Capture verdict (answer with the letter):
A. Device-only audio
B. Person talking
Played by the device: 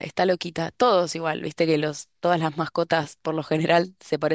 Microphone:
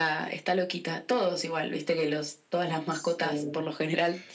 B